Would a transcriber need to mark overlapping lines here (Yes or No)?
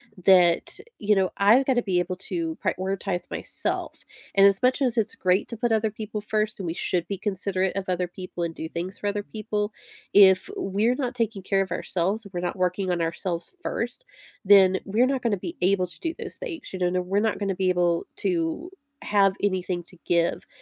No